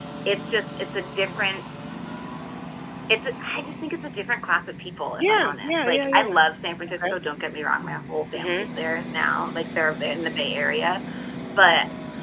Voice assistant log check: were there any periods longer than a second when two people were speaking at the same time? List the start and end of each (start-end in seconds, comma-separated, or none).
5.2-6.4